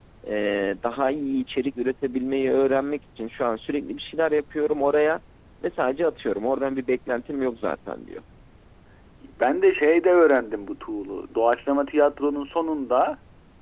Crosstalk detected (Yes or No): No